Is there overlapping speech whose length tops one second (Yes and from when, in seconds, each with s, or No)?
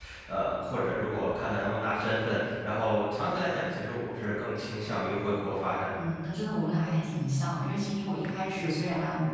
No